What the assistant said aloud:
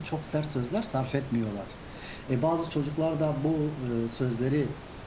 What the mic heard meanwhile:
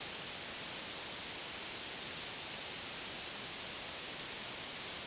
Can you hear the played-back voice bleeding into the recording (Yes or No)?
No